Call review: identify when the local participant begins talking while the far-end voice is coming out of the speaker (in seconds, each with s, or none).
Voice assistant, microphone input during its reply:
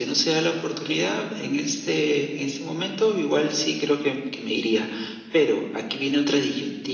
none